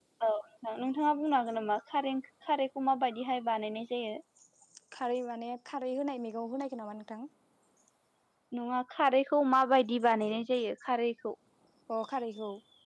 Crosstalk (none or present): none